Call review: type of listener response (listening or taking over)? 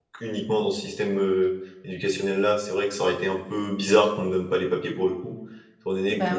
listening